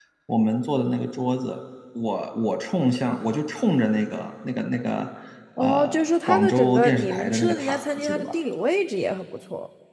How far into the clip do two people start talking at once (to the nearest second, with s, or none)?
6 s